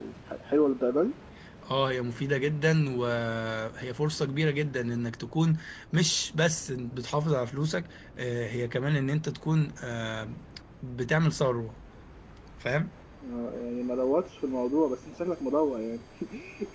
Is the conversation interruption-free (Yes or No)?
Yes